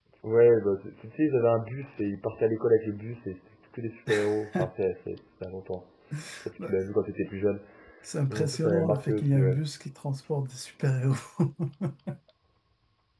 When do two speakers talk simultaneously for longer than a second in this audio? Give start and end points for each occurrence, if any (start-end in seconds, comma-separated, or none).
8.3-9.6